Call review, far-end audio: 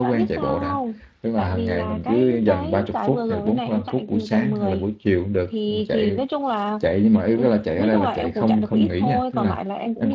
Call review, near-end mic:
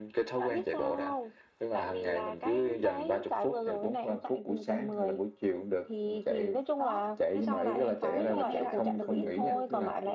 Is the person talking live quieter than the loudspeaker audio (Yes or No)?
Yes